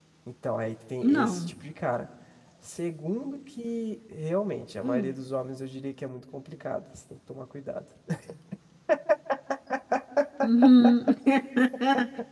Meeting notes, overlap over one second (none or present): none